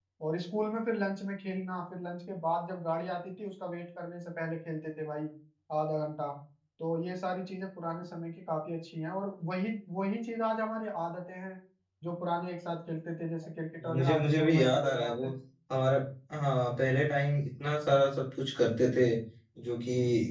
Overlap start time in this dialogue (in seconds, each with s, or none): 13.8 s